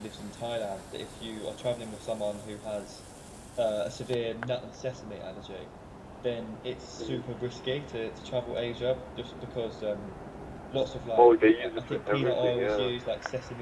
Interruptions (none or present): present